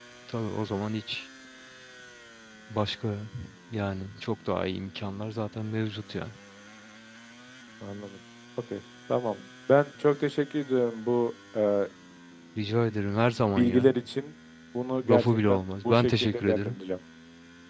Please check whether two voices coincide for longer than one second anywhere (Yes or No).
Yes